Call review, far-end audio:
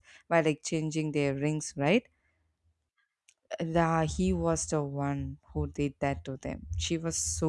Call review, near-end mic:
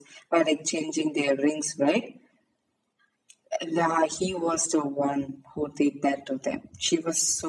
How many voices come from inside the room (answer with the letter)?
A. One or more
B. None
B